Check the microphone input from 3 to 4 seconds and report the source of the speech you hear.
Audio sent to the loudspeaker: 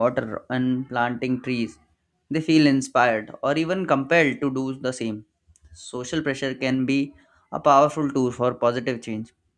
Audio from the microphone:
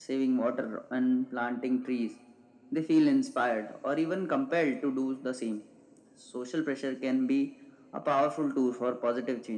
echo only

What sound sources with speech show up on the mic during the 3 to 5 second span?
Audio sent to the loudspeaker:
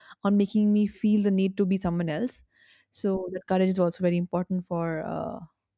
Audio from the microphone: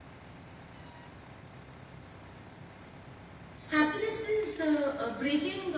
user only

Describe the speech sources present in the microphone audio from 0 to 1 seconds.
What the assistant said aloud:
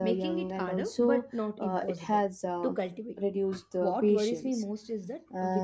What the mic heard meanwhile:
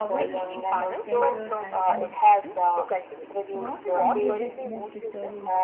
both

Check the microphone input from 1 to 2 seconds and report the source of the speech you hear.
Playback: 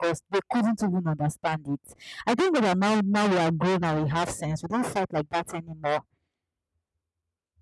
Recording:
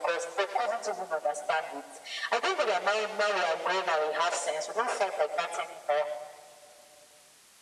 echo only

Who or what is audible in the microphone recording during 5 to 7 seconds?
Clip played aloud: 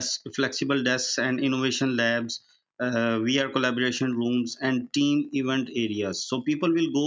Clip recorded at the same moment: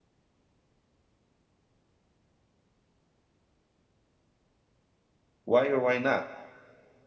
user only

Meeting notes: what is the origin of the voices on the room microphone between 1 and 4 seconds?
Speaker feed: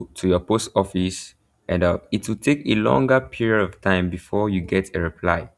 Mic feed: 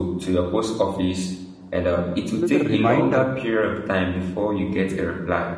both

